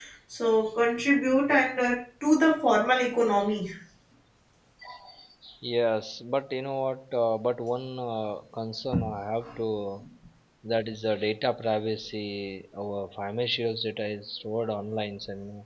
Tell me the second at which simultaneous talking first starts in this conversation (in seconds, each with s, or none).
none